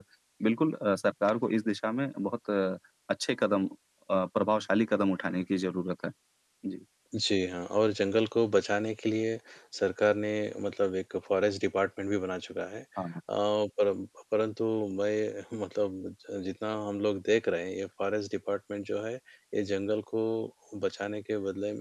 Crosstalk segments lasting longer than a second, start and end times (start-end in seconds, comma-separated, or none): none